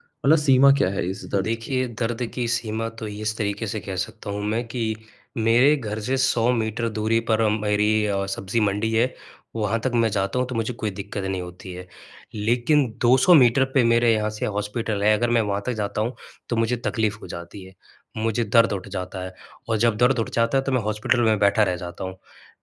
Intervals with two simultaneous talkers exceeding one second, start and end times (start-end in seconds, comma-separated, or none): none